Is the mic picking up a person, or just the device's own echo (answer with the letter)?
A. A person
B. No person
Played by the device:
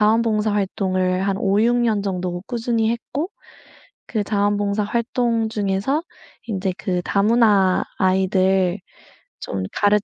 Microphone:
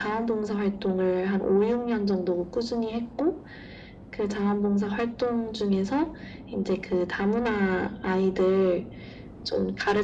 B